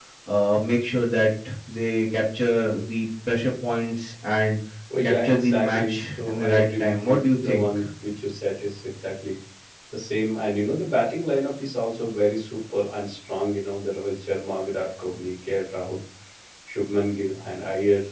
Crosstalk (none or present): present